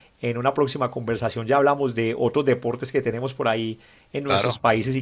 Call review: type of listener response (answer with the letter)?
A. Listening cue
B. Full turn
A